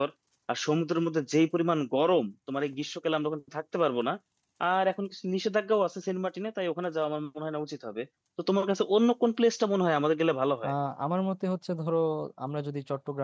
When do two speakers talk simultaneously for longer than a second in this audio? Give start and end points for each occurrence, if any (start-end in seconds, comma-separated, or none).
none